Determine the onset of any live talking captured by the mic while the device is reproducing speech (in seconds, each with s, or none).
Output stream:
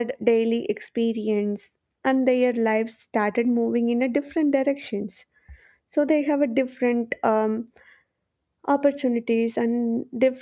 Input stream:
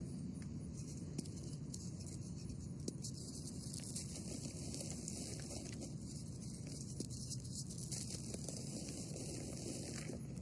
none